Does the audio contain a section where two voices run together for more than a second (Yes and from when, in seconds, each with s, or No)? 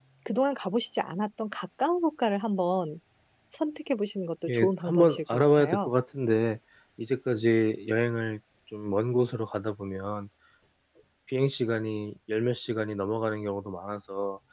Yes, from 4.4 s